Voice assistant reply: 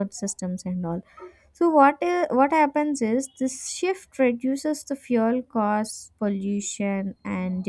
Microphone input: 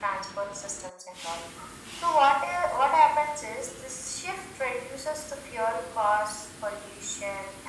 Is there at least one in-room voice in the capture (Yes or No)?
No